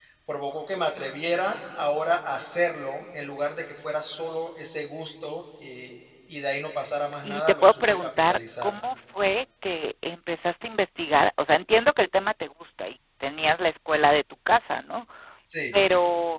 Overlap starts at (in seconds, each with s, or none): 7.2 s